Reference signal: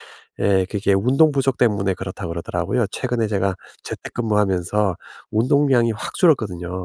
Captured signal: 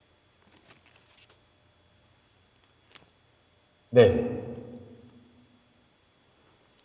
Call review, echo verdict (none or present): none